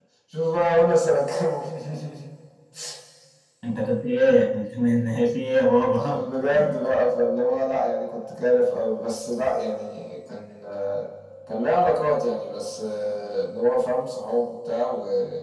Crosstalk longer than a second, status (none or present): none